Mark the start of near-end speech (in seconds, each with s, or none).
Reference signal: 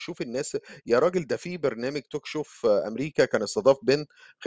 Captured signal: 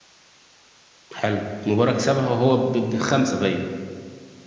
1.1 s